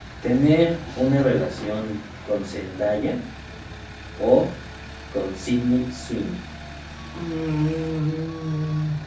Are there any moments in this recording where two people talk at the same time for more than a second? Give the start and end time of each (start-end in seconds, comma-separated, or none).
none